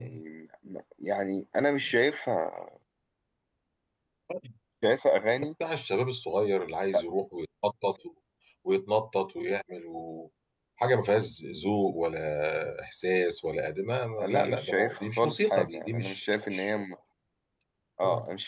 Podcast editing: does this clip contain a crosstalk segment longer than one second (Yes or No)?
Yes